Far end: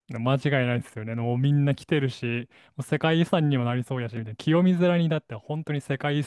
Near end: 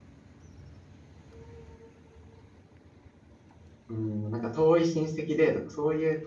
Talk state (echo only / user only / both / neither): user only